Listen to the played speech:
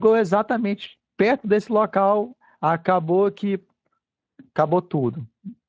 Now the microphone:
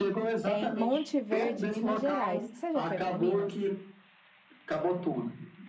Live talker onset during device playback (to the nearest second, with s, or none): 0 s